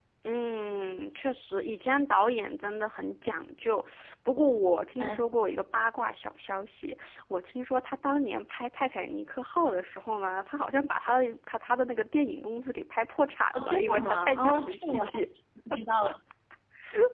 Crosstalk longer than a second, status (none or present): present